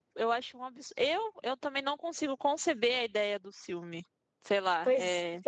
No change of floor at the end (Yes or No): No